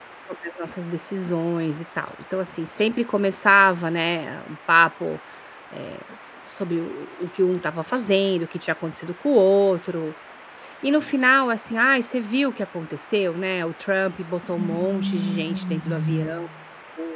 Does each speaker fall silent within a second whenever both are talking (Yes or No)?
No